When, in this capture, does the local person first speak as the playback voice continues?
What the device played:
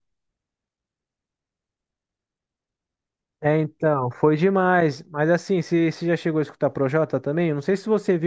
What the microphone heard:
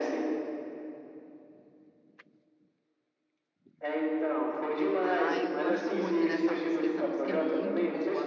5.0 s

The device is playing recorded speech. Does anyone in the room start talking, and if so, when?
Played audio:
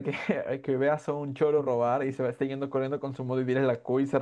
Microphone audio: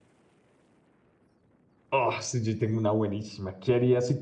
1.9 s

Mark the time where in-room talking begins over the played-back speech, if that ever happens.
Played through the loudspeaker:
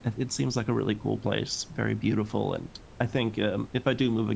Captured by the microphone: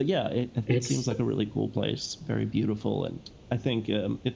0.7 s

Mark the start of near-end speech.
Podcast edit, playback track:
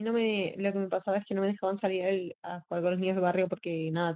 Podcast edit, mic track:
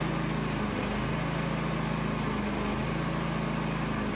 none

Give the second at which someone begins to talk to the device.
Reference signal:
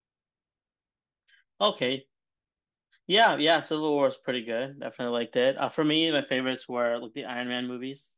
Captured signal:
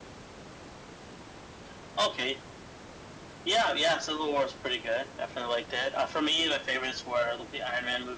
none

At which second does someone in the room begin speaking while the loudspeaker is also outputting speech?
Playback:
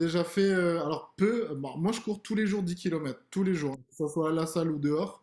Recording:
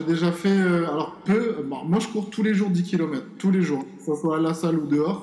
none

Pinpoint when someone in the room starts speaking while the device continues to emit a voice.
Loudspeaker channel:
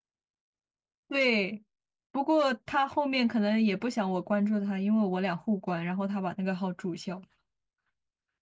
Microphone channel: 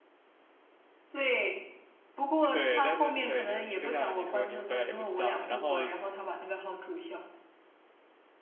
2.5 s

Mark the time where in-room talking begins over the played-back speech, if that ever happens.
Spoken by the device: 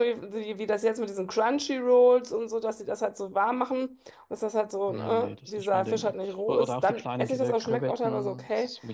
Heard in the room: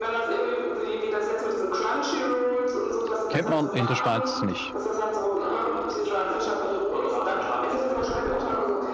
3.3 s

